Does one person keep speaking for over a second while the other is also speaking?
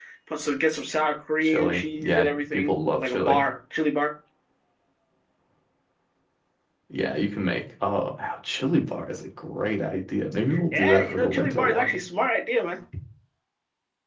Yes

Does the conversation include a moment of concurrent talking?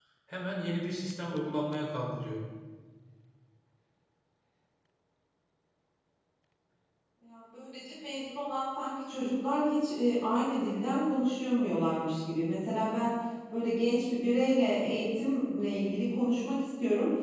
No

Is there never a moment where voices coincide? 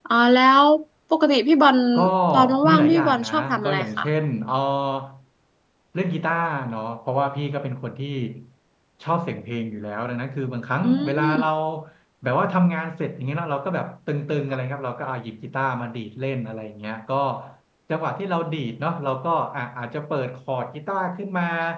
No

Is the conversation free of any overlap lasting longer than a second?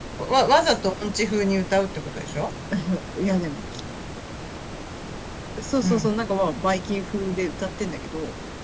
Yes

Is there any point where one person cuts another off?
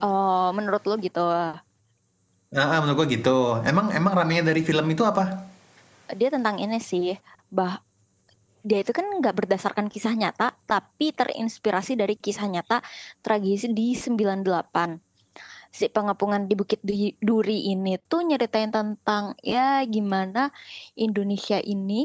No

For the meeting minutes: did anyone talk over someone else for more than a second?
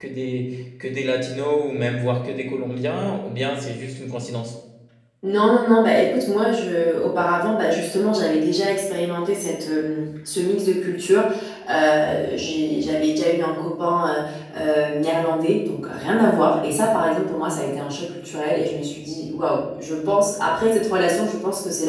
No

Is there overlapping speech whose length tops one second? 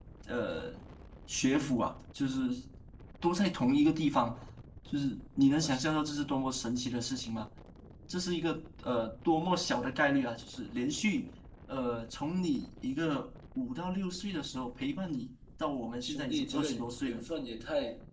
Yes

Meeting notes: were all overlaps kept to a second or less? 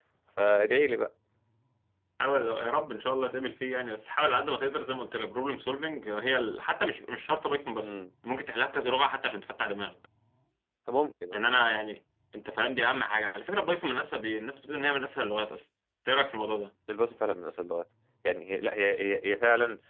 Yes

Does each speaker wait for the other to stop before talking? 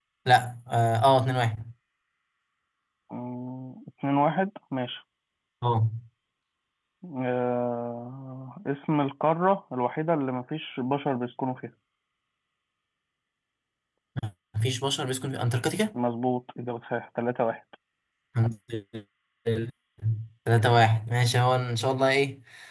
Yes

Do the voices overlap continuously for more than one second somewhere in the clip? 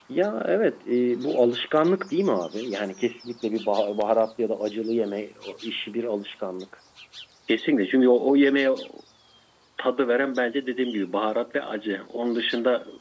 No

